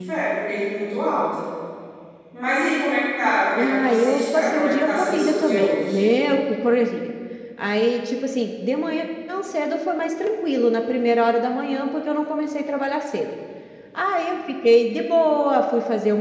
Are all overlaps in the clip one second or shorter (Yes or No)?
No